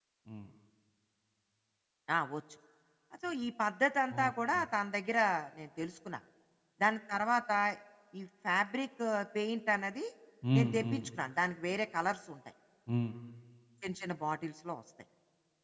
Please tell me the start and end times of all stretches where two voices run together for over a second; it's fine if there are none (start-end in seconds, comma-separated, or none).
none